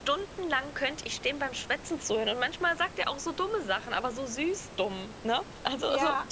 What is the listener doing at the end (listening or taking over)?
taking over